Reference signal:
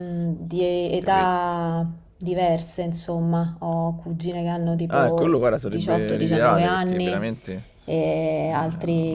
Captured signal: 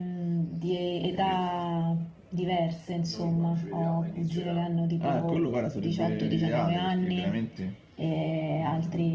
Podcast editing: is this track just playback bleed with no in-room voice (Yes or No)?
No